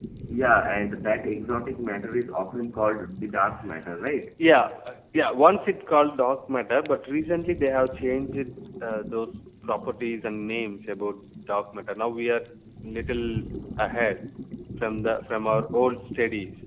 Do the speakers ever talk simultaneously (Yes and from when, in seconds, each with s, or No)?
No